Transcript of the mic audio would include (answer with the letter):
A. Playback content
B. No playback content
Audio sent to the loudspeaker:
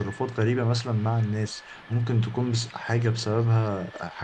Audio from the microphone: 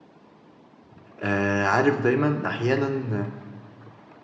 B